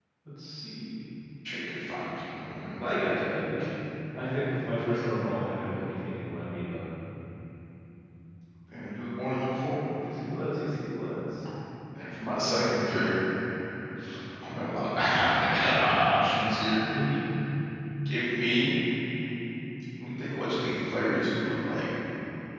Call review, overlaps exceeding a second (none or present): none